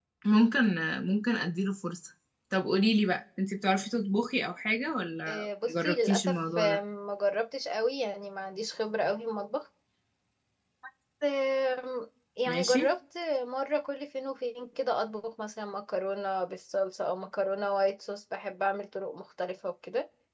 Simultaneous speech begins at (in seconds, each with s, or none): 5.3 s